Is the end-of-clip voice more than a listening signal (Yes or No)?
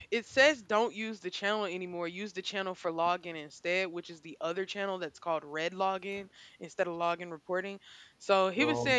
No